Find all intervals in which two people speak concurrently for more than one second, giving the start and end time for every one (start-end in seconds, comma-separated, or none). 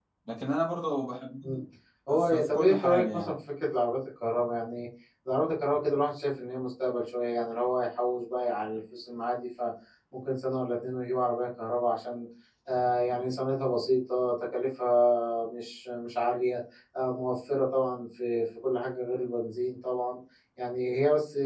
2.2-3.4